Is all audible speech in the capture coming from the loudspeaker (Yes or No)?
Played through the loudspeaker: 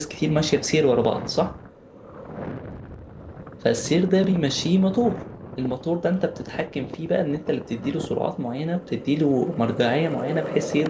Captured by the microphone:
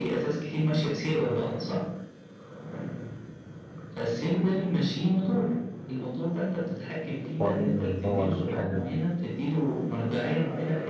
No